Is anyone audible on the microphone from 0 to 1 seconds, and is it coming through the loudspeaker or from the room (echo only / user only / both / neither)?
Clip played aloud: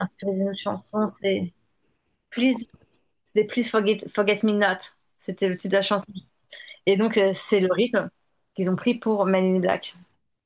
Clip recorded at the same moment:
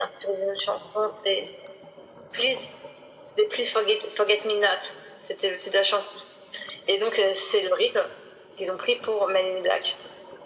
echo only